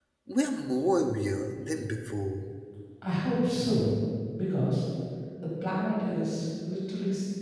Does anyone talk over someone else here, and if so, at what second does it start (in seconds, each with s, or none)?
none